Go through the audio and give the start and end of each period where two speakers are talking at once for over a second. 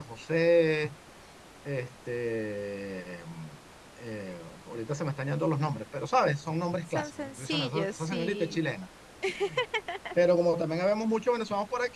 6.9-8.6

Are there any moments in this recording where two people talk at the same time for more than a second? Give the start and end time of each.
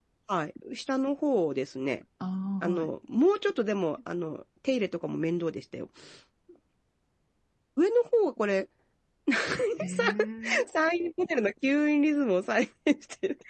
none

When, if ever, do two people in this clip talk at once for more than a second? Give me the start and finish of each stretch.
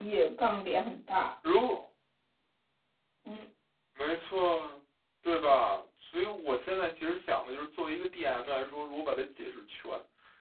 none

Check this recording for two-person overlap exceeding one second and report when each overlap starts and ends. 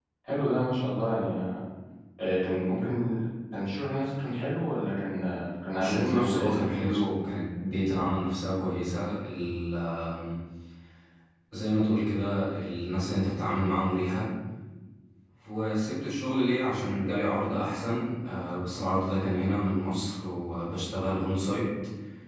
5.8-7.0

